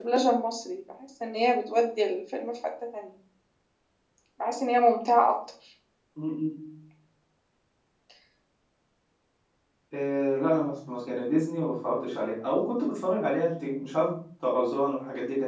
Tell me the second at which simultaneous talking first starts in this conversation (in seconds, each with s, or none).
none